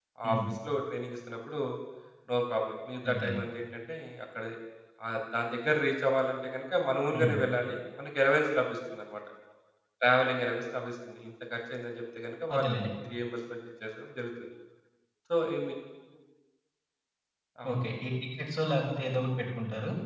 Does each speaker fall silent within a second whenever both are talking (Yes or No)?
Yes